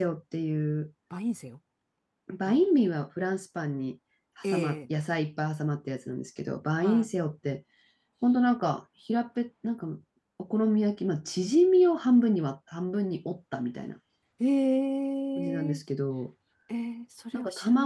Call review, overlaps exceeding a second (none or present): none